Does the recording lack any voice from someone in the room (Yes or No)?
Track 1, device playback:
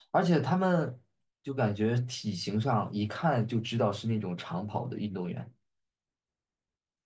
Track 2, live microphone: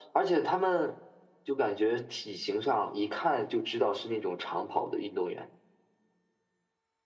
Yes